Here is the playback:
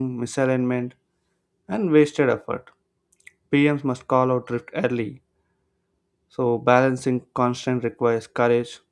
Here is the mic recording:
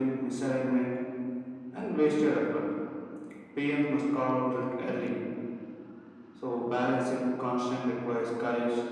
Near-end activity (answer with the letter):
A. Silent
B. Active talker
A